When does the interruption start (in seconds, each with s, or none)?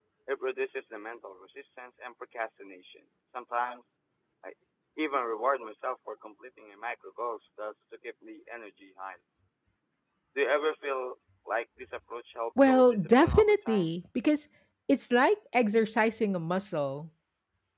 12.6 s